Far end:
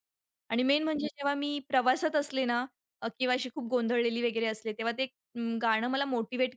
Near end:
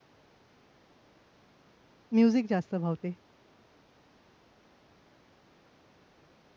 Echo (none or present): none